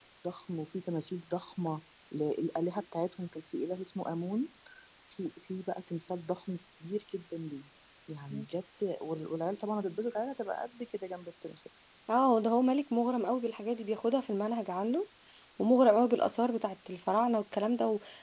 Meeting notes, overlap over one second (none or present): none